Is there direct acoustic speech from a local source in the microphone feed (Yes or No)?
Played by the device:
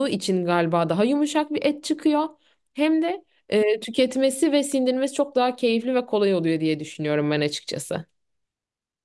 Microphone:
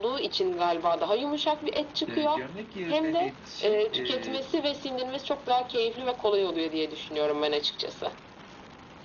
Yes